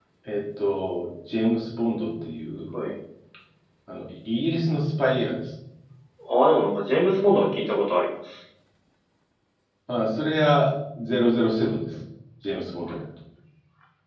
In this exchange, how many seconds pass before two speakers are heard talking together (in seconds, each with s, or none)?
none